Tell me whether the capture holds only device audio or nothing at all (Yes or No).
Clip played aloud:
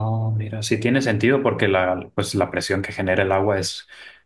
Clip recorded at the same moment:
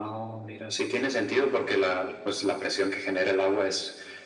Yes